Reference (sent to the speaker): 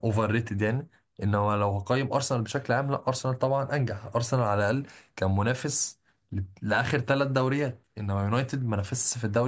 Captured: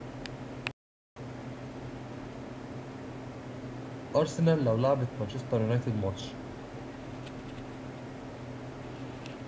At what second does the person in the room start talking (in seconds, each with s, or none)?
4.2 s